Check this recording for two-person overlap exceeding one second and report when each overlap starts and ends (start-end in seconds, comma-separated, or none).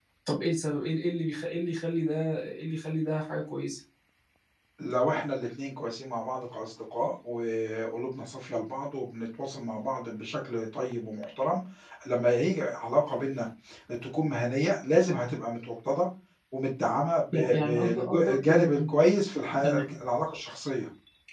17.3-18.9